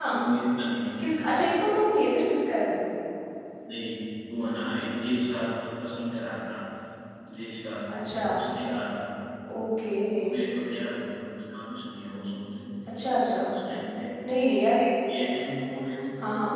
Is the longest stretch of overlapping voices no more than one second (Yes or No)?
Yes